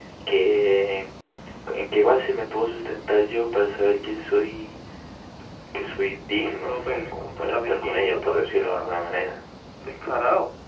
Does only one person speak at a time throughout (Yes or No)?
No